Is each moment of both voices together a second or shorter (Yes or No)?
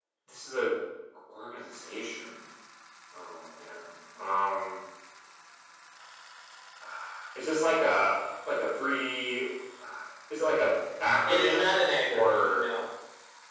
No